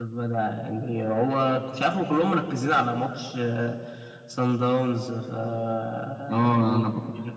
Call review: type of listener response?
taking over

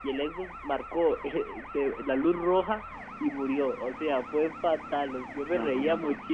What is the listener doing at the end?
listening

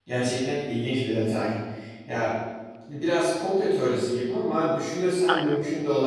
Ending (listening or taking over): listening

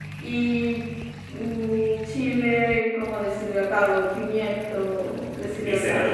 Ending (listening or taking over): taking over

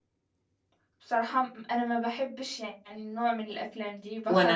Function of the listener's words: taking over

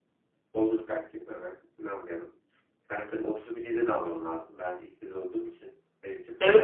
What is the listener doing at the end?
taking over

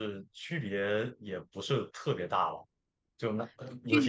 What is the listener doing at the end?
taking over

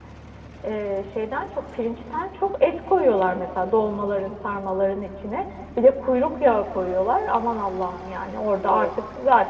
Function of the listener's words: listening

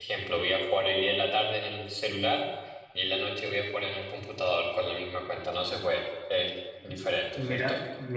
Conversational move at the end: taking over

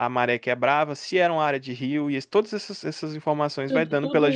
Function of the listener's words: taking over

